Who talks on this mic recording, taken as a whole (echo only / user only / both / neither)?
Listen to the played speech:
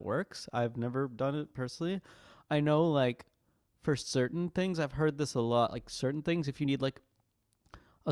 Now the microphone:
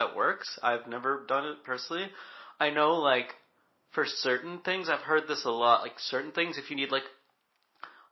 echo only